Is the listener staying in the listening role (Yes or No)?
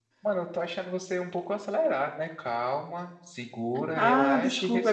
No